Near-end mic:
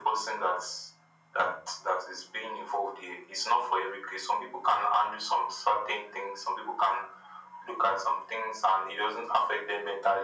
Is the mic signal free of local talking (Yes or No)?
Yes